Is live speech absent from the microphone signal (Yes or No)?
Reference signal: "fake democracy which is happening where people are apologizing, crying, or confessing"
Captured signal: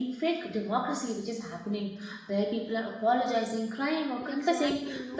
No